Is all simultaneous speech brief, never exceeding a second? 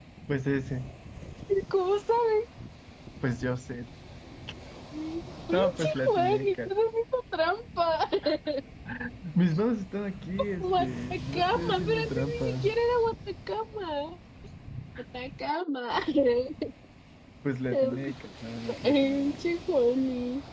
No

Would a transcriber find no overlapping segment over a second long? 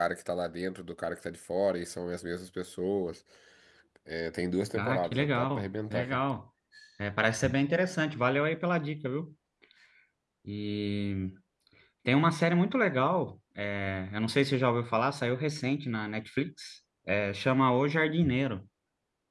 No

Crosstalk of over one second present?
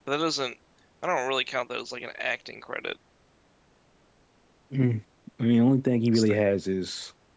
No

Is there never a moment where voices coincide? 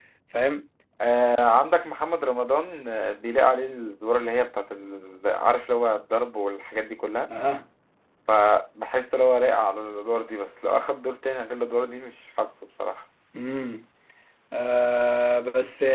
Yes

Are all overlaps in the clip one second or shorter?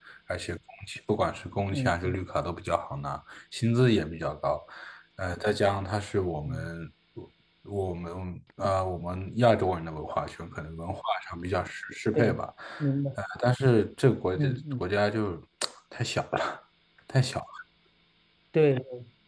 Yes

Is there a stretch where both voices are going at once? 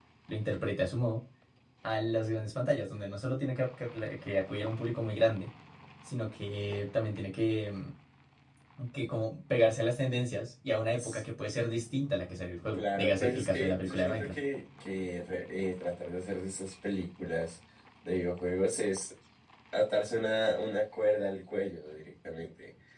Yes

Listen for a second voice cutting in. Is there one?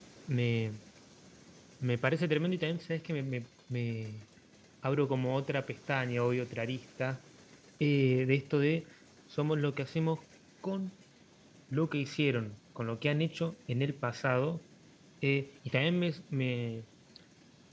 No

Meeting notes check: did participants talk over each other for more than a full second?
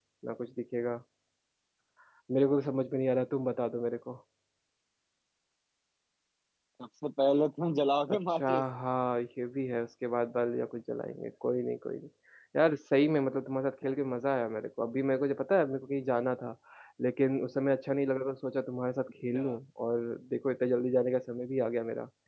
No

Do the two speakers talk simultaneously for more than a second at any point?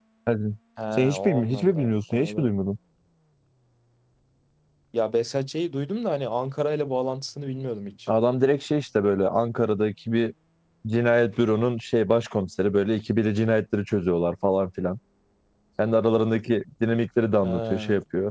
Yes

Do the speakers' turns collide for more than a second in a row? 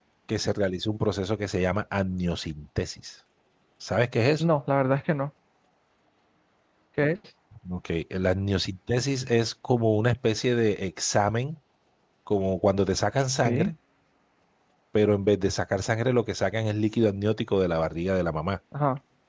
No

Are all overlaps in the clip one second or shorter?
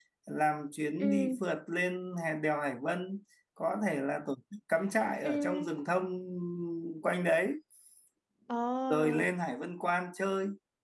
Yes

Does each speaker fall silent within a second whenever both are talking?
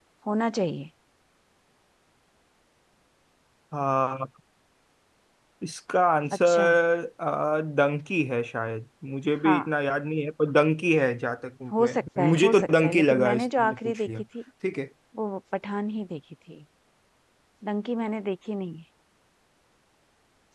No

